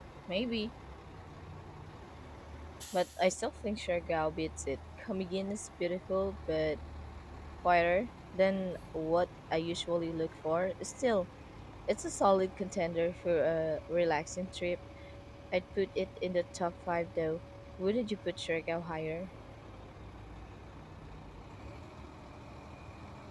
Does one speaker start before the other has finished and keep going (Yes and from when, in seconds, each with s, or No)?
No